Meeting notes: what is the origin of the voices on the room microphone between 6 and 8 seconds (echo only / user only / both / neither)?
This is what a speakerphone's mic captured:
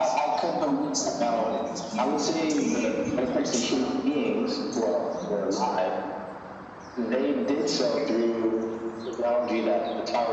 echo only